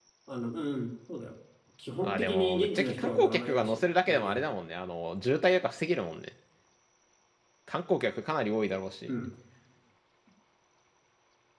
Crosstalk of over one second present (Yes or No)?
Yes